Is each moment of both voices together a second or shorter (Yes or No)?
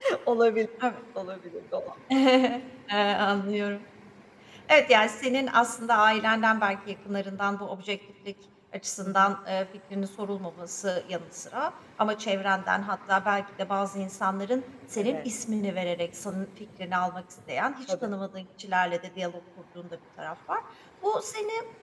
Yes